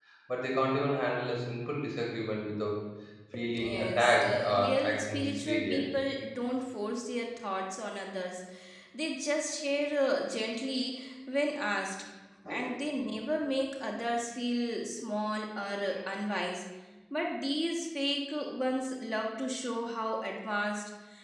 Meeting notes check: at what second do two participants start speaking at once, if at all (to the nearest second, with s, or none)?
4 s